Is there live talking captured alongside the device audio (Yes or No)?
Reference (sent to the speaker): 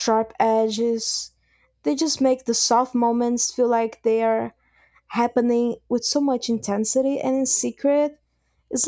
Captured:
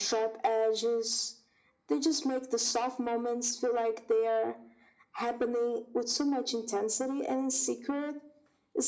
No